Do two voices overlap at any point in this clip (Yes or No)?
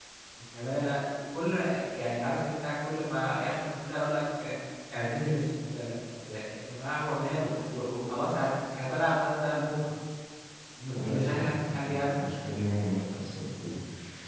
Yes